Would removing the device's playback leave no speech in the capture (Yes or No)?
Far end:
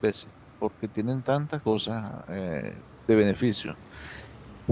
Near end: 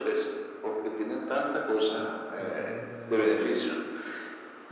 No